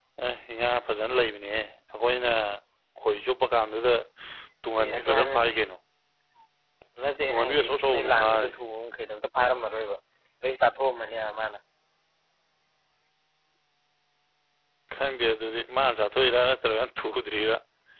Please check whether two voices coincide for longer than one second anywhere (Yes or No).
Yes